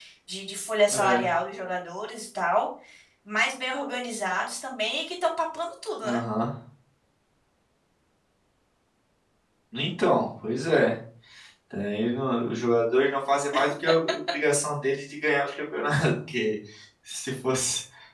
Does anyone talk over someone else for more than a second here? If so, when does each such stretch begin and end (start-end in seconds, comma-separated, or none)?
none